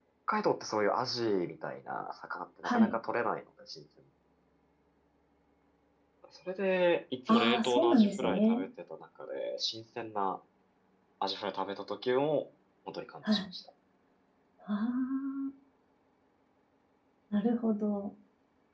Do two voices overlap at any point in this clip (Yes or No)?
Yes